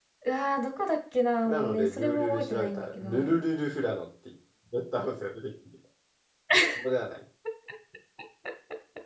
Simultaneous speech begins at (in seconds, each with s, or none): 1.4 s